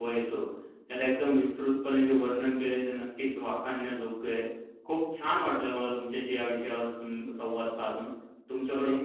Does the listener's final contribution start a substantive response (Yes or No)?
No